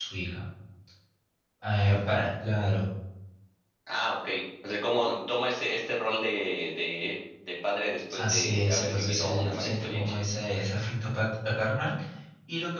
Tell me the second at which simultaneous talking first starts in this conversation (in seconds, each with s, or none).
8.1 s